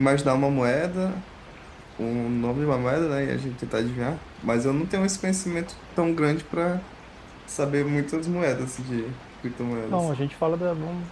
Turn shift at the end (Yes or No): Yes